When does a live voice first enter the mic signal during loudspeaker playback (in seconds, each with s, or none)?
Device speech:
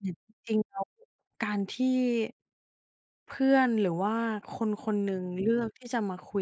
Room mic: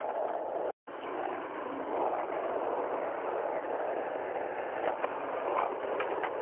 none